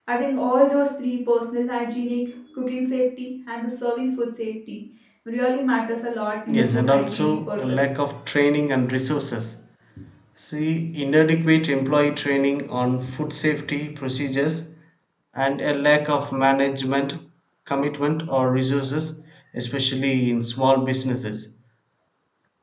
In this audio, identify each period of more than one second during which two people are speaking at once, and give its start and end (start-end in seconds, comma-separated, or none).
6.5-7.8